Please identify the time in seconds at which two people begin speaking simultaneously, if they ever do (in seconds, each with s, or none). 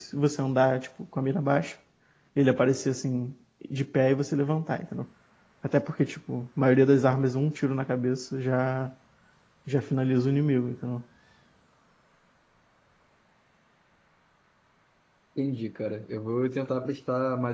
none